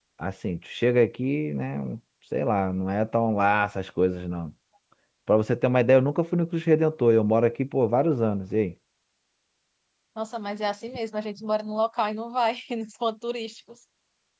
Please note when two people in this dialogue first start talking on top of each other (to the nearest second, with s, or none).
none